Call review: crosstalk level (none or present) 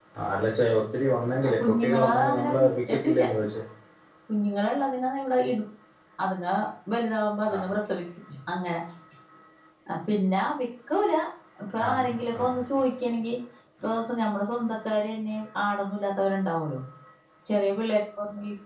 present